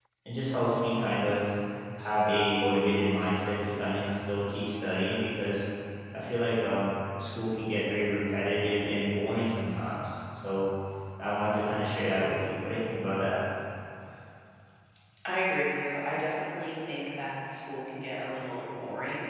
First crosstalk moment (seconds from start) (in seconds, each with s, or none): none